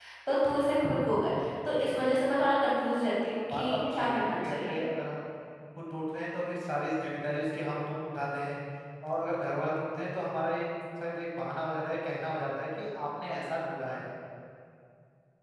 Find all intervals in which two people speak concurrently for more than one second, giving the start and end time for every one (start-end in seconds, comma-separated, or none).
3.5-4.8